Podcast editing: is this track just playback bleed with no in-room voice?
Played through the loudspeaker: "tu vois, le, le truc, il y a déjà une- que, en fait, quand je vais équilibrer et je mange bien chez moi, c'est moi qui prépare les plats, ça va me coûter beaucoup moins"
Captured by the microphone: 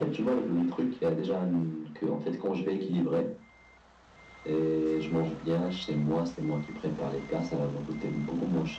Yes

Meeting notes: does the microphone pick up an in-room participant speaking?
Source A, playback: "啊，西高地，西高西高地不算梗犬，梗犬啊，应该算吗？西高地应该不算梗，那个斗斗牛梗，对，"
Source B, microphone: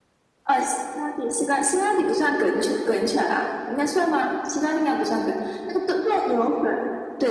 No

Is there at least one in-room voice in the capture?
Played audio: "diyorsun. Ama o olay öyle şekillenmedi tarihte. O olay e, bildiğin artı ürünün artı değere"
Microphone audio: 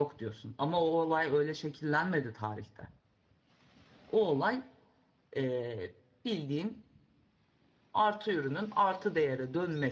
No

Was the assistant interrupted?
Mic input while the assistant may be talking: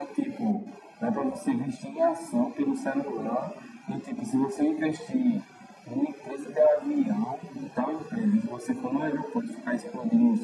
No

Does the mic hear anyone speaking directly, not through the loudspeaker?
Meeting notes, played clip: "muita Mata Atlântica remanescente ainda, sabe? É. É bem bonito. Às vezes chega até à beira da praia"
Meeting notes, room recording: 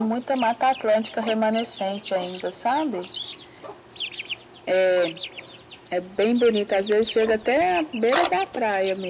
No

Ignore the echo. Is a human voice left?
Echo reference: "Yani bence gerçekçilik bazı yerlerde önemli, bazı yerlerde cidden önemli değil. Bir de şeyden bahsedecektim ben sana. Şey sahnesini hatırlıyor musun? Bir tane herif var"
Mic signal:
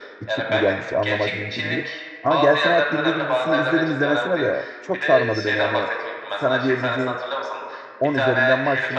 Yes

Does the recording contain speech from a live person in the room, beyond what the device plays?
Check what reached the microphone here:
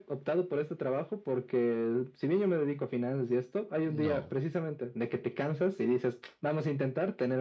Yes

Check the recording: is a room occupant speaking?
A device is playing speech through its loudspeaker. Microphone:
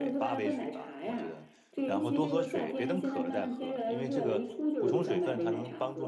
Yes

